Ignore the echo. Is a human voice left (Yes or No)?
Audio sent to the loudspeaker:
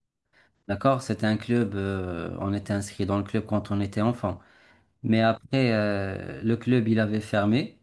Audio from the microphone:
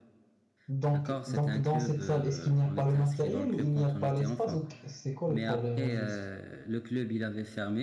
Yes